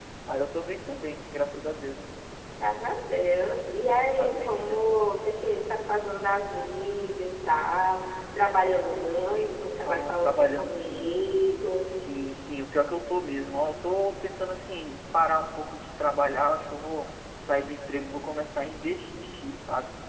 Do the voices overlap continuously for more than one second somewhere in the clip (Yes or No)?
Yes